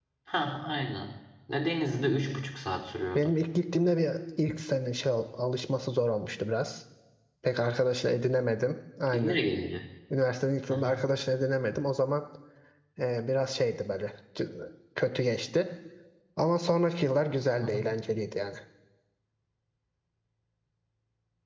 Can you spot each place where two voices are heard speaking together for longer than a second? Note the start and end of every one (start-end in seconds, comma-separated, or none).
none